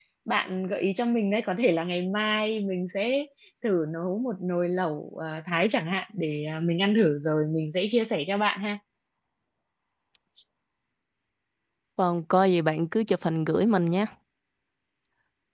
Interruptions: none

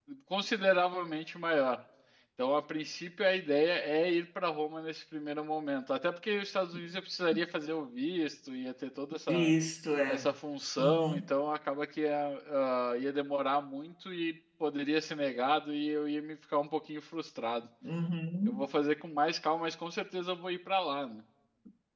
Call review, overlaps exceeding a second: none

